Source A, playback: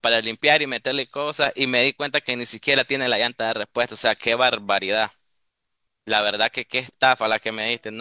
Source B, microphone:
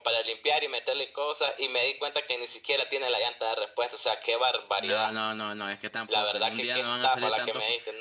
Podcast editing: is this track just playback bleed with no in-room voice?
No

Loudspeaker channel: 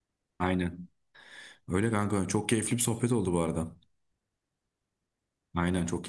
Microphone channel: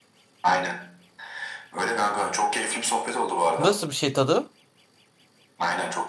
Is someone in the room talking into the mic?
Yes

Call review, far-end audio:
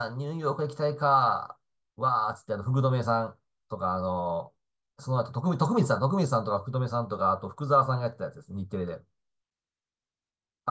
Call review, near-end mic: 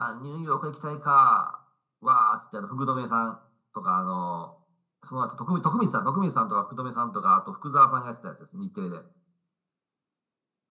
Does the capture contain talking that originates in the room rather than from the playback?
No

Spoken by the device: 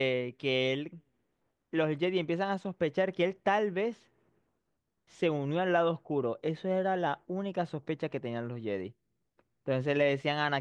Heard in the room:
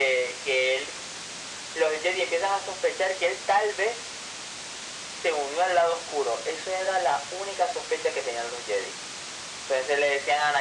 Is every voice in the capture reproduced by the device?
Yes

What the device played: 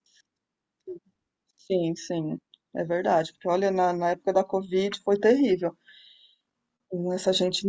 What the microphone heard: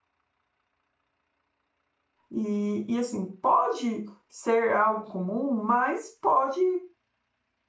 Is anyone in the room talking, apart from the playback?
Yes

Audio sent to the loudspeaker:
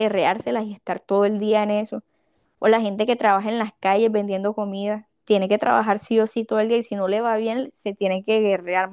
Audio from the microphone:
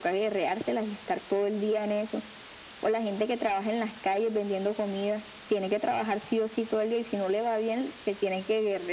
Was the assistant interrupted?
No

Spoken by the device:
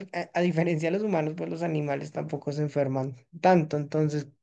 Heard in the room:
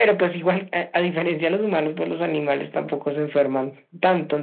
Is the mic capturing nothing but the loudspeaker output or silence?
Yes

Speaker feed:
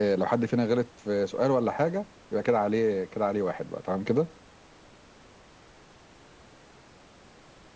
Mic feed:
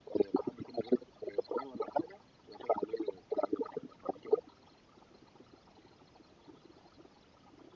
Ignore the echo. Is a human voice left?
No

